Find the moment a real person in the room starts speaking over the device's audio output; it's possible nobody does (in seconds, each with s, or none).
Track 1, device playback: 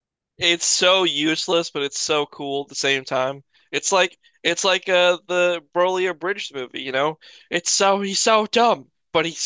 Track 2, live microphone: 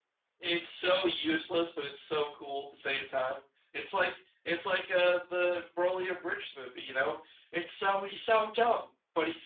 none